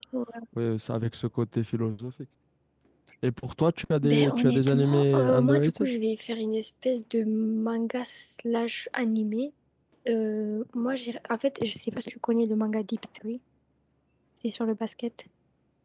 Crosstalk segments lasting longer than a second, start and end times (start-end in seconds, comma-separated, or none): 4.0-5.9